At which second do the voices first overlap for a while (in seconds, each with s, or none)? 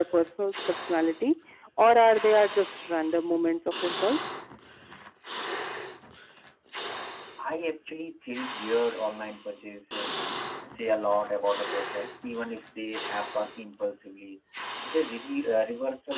none